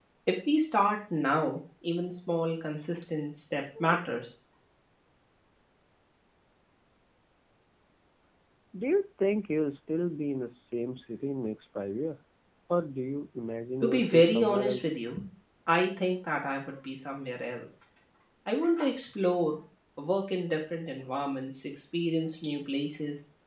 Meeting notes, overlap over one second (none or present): present